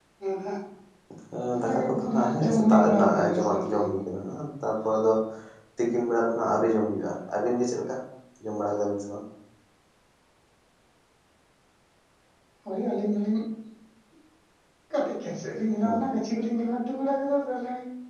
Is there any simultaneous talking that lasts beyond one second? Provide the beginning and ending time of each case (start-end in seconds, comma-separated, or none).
1.6-3.8